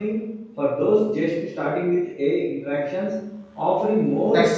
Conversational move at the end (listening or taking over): taking over